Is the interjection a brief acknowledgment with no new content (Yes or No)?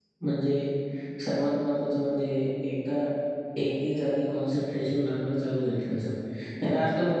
Yes